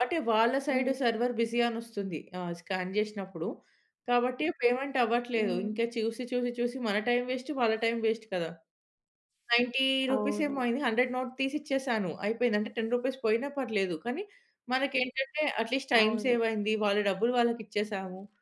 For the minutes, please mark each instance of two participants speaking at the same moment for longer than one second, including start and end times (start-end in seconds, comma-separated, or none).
none